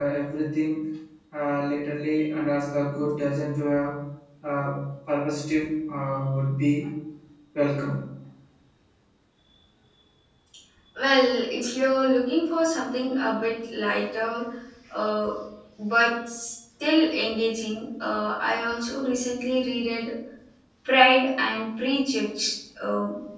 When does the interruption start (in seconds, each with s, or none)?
none